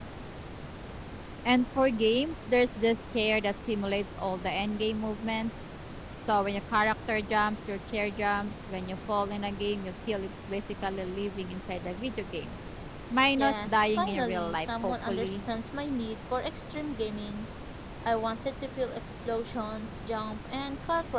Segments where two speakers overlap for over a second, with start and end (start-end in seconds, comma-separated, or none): 13.4-15.4